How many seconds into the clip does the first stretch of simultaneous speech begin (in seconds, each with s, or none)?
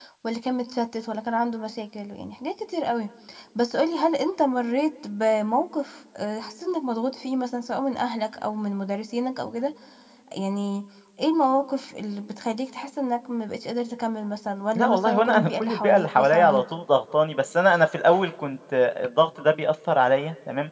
14.8 s